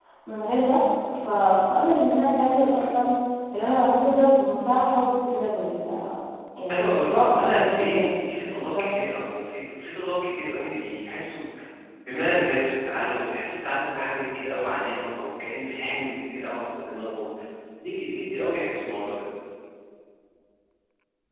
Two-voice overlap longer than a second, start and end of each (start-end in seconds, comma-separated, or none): 6.7-8.1